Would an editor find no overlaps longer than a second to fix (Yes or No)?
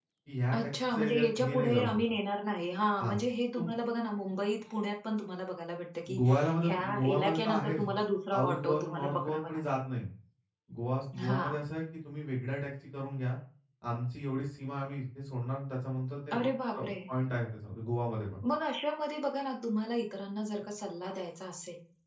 No